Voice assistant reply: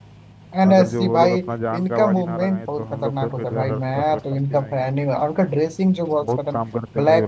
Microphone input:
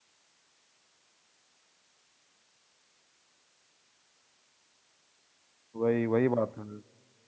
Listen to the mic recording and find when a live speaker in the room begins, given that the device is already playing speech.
5.8 s

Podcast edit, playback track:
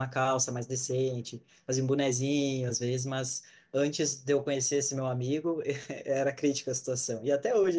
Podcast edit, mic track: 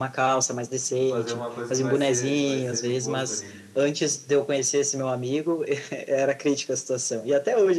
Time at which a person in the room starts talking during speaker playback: 1.0 s

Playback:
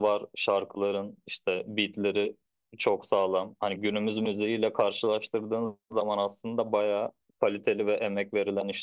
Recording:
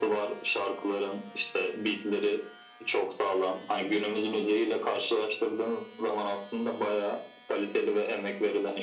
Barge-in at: none

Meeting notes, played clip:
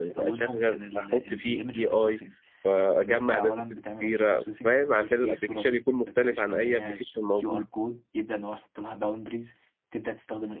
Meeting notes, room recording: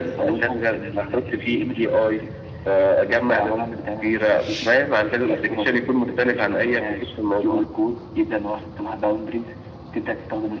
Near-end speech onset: none

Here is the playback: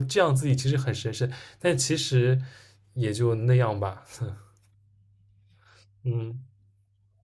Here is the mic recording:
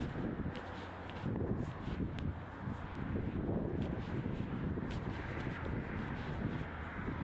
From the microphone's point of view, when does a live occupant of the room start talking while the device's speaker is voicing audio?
none

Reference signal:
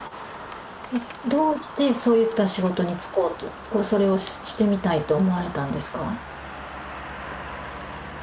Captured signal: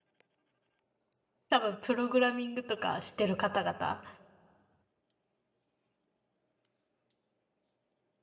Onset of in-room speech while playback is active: 1.5 s

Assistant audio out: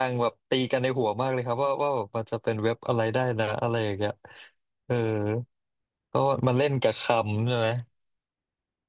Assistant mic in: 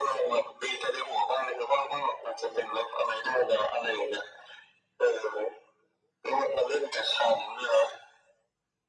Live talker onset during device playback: none

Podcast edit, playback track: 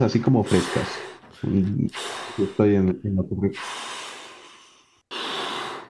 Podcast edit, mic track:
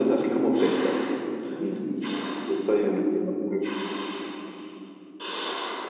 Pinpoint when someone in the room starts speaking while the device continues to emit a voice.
none

